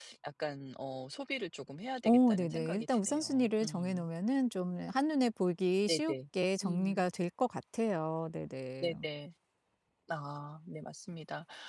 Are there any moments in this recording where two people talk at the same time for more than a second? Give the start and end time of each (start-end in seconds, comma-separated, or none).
2.0-4.0